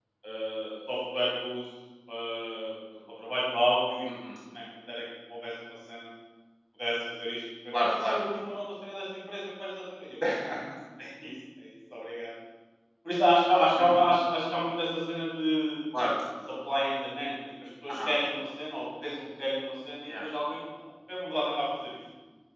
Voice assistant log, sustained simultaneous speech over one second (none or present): none